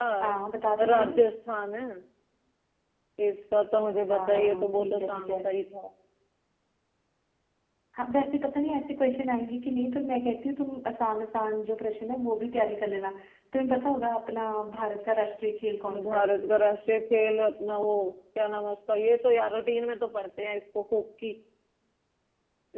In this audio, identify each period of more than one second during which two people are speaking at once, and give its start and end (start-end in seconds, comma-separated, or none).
4.1-5.4